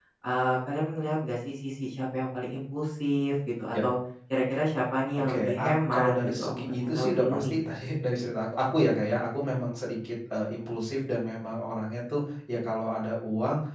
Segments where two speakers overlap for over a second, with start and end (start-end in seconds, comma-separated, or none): 5.2-7.6